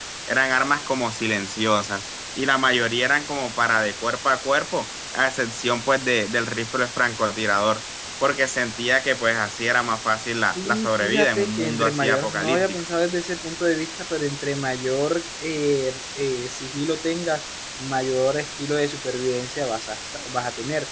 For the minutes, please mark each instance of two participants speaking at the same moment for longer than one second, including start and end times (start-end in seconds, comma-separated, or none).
10.6-12.8